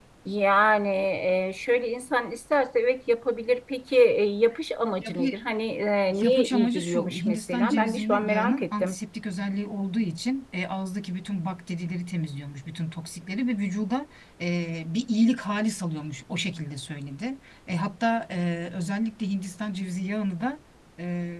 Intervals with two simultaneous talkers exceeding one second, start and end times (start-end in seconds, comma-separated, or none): 6.1-9.0